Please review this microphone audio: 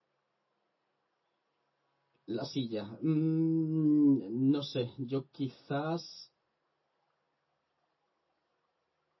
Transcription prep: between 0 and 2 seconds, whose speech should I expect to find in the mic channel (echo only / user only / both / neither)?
neither